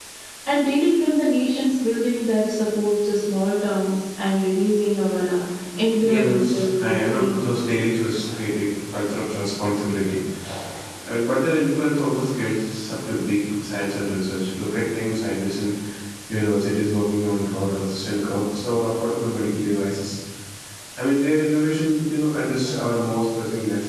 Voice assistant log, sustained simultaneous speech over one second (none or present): present